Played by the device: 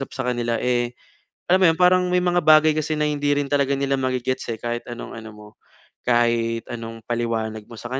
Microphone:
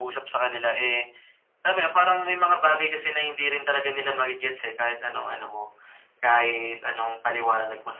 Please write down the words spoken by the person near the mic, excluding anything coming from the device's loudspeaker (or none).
none